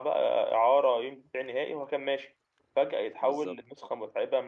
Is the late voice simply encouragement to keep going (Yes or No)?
Yes